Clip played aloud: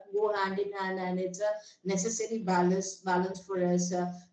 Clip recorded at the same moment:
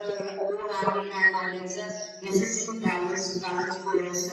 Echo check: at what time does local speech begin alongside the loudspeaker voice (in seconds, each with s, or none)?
none